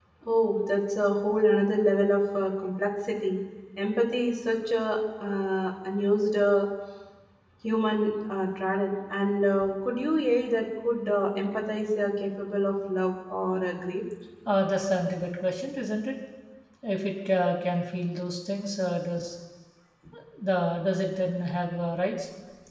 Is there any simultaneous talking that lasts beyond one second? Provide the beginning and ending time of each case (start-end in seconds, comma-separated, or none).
none